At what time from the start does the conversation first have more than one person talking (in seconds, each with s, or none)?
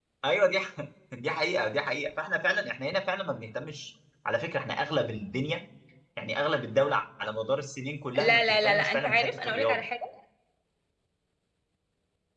8.1 s